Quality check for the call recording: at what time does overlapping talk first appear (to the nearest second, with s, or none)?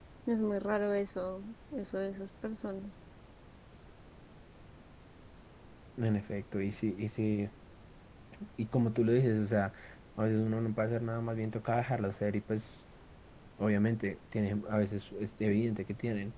none